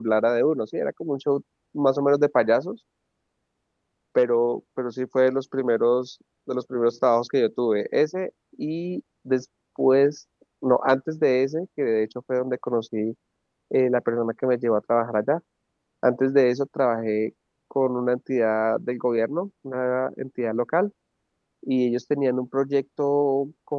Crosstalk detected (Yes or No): No